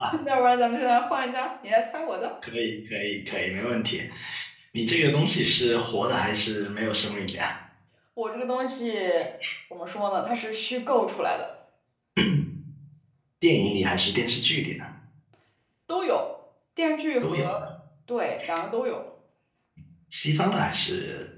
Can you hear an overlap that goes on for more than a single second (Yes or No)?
No